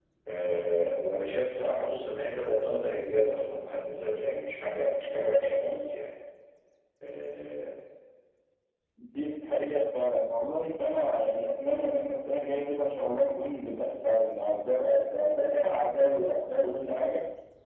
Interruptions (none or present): none